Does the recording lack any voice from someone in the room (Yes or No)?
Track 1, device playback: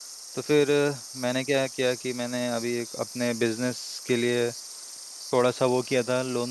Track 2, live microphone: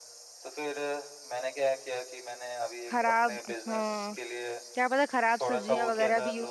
No